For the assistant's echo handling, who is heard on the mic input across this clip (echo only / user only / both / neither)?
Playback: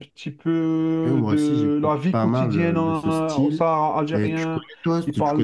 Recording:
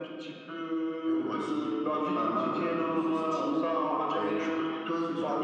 echo only